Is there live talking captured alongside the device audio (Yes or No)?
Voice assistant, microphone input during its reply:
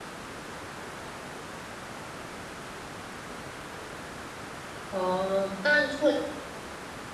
Yes